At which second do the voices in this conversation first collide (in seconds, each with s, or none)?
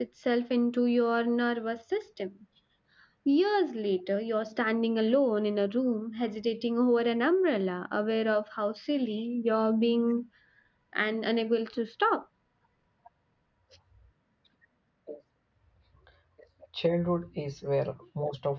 none